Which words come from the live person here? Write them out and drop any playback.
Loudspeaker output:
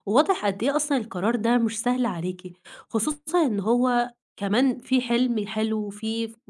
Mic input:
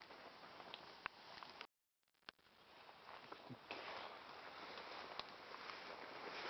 none

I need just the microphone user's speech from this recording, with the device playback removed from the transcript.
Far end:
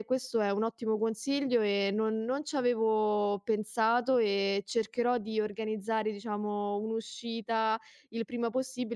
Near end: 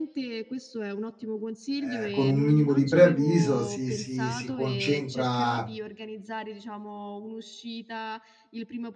ehm, con un minimo di preavviso si si si concentra

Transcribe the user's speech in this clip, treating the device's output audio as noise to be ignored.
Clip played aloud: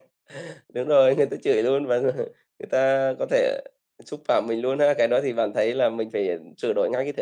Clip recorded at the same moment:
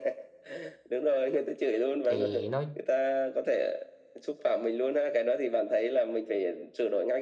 Thì nói

